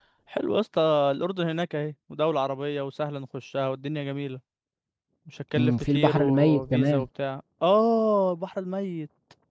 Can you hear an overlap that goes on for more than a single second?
Yes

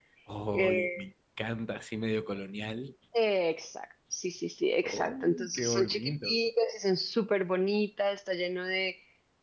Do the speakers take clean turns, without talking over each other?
No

